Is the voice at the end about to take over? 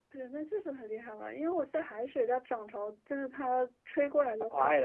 Yes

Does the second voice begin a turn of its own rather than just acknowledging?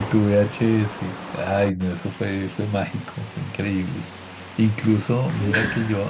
No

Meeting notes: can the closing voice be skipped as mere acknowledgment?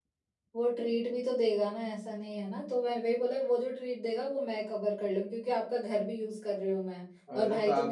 No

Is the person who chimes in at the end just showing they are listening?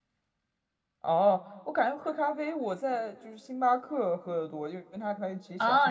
No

